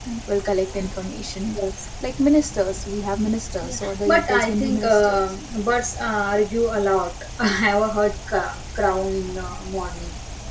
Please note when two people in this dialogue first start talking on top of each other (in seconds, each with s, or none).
3.6 s